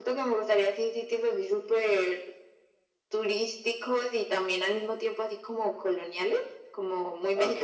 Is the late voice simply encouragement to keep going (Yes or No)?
No